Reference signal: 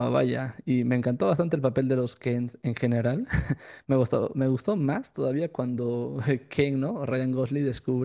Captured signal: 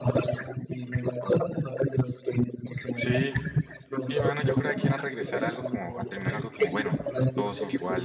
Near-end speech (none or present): present